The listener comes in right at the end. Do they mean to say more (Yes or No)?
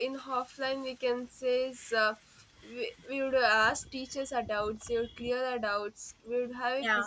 No